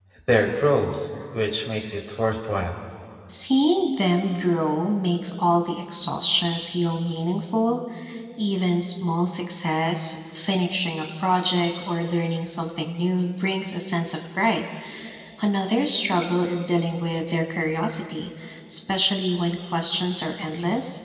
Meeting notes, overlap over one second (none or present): none